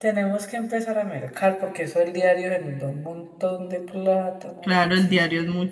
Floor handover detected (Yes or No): Yes